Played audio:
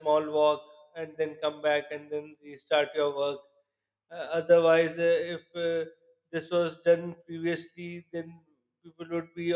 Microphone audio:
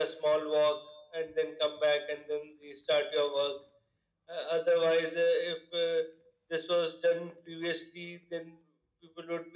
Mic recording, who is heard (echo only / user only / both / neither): echo only